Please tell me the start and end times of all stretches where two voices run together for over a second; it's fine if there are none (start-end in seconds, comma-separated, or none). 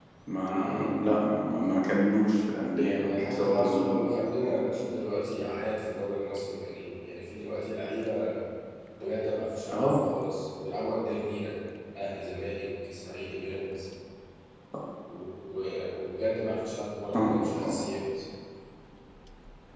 2.8-4.1